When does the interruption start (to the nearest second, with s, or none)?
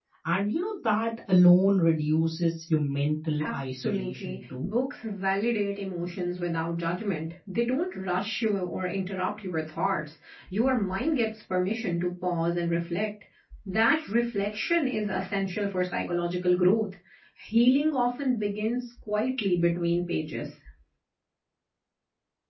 3 s